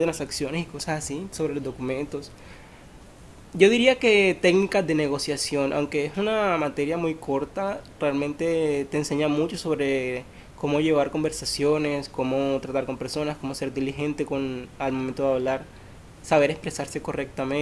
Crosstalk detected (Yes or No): No